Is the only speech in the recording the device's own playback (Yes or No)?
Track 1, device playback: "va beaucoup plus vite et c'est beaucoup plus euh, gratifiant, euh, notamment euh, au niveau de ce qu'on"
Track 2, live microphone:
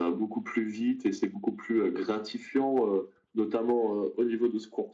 Yes